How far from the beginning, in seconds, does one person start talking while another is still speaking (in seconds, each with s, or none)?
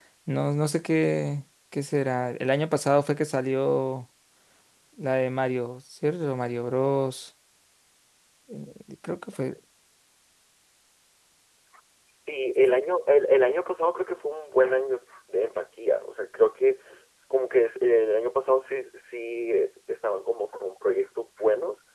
none